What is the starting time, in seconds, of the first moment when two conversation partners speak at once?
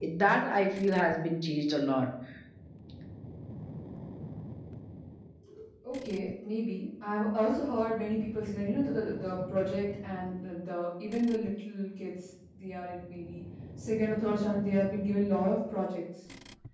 none

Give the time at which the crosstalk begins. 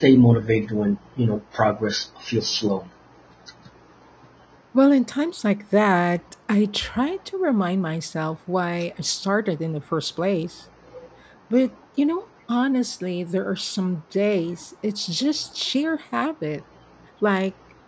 none

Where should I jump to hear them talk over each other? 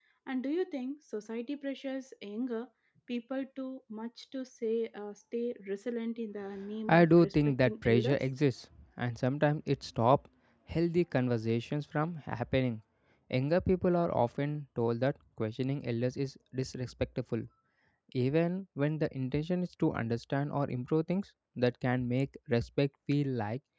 6.9 s

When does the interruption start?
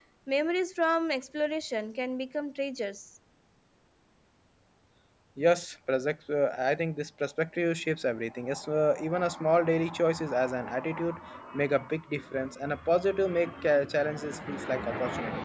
none

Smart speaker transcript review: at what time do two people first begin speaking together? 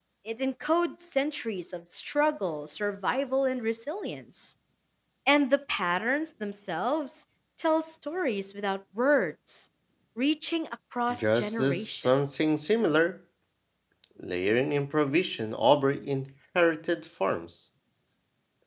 11.1 s

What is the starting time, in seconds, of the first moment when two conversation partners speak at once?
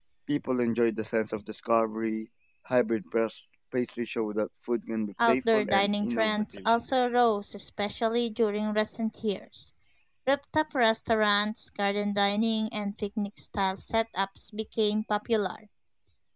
5.2 s

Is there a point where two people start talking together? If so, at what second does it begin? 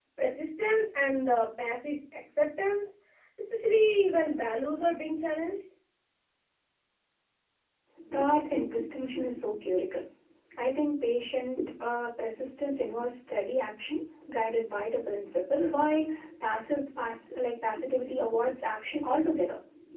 none

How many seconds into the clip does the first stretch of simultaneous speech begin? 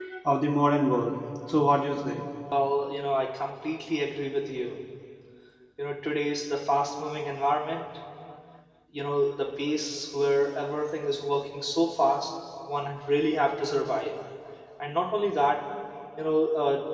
none

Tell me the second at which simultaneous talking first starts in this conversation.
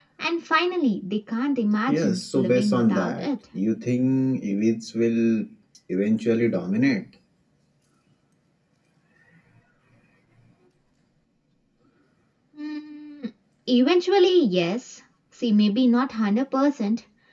1.9 s

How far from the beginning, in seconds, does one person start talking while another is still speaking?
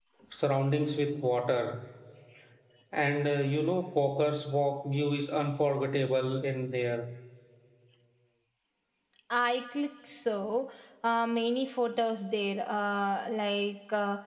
none

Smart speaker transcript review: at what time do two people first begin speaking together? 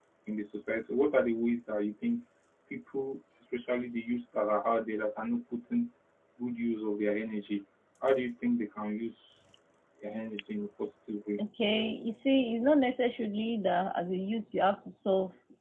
none

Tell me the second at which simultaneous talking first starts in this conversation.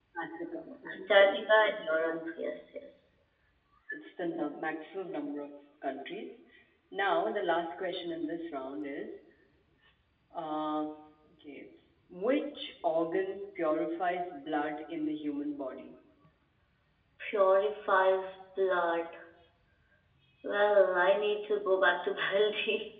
1.0 s

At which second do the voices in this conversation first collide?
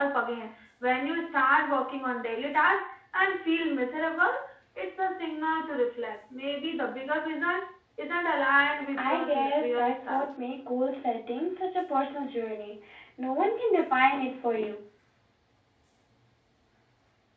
8.9 s

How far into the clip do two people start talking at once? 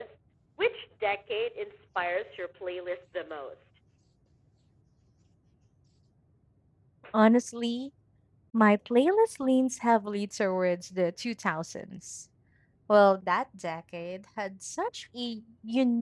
none

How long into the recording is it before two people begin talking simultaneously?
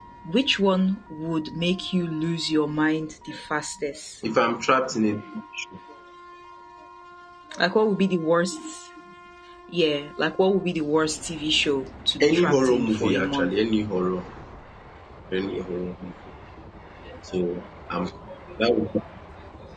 12.2 s

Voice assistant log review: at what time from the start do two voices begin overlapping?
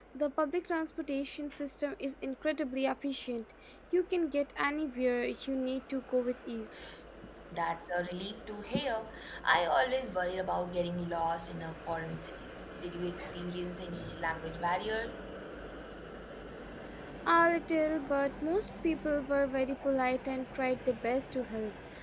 none

